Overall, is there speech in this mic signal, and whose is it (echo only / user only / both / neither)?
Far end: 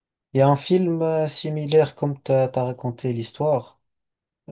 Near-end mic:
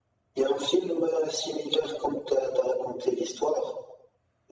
echo only